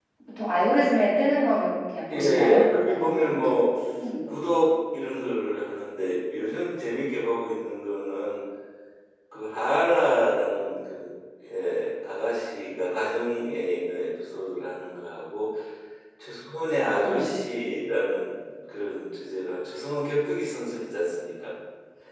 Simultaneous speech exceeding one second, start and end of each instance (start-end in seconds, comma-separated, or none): 2.1-3.5